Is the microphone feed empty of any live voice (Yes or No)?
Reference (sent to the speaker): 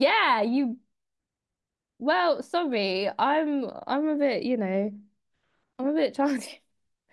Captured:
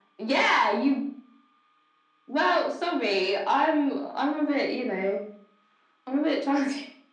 Yes